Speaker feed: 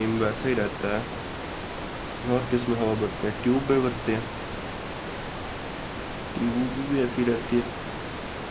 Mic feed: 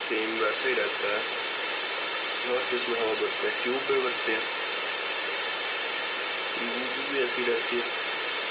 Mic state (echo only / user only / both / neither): echo only